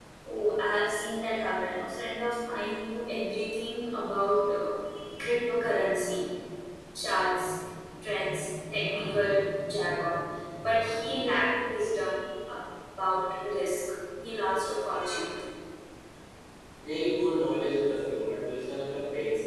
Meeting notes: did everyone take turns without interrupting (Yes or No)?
Yes